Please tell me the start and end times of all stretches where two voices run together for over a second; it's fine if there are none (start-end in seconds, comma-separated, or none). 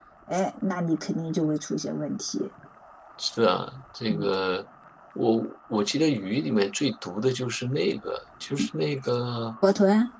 none